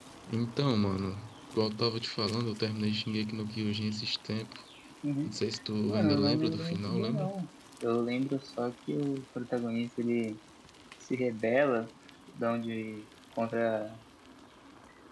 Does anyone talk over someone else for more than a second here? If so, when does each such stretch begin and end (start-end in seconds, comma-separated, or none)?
5.9-7.3